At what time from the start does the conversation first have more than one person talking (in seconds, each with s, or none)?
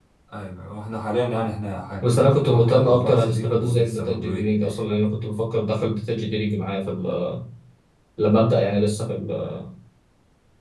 2.0 s